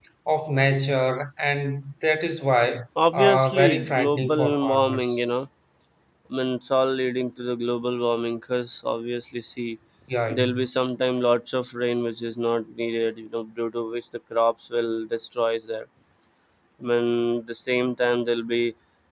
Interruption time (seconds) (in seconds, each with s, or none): 3.1 s